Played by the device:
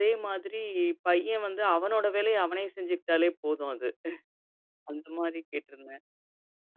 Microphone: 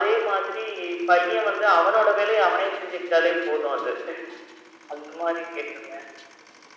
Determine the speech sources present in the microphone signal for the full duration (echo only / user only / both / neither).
echo only